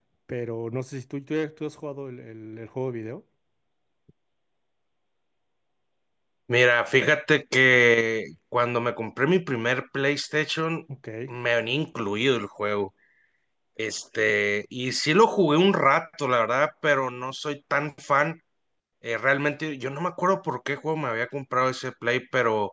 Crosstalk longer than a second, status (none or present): none